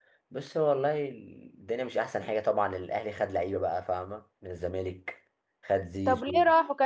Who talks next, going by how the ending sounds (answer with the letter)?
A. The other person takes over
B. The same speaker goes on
A